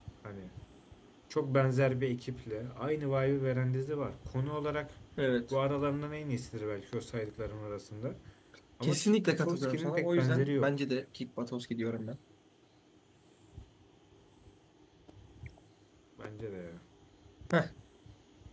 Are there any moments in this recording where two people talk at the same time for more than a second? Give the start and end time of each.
8.8-10.7

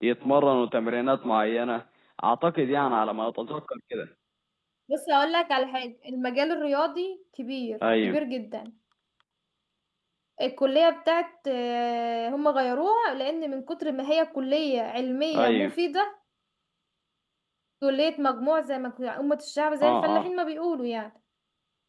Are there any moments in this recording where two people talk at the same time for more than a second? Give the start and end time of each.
none

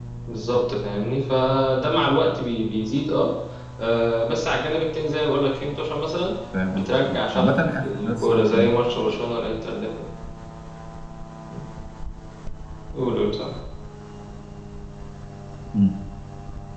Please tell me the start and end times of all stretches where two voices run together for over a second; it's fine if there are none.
6.7-8.7

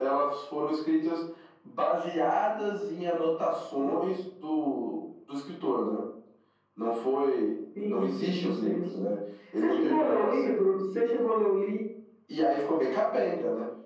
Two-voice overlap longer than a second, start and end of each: 7.8-9.1, 9.6-10.9

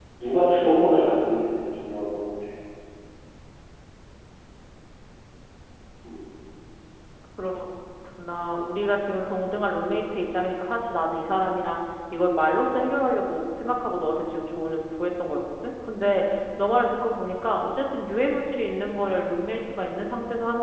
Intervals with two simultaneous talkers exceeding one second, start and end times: none

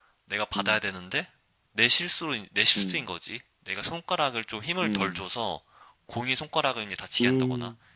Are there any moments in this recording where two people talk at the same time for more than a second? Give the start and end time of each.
none

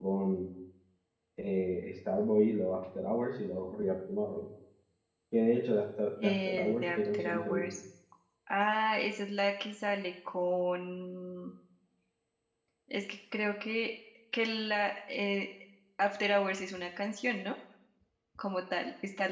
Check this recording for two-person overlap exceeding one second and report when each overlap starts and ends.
6.2-7.7

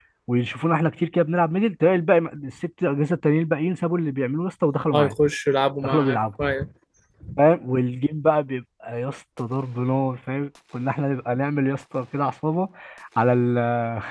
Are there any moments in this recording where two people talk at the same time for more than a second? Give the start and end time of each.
none

